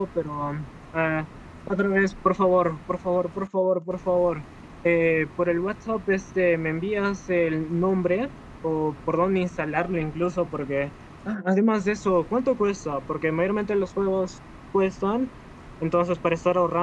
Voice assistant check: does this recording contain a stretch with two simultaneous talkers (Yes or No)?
No